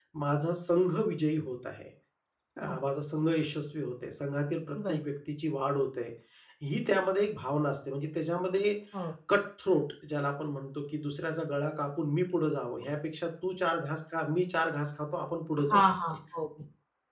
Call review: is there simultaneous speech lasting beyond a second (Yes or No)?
No